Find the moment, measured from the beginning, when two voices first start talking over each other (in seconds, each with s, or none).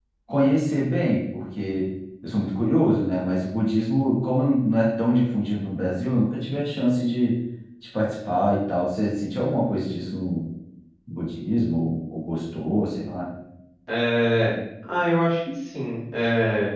none